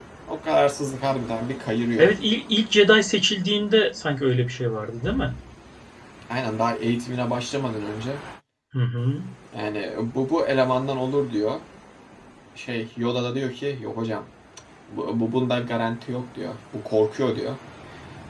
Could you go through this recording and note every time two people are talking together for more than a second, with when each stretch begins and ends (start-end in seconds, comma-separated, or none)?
none